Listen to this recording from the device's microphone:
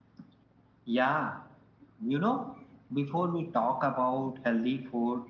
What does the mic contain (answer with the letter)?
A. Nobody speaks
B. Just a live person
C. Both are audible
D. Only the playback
D